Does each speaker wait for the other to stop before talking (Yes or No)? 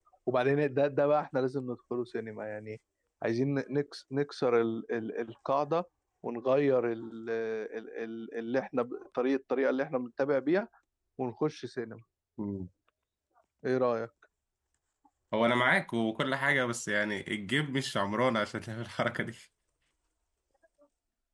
Yes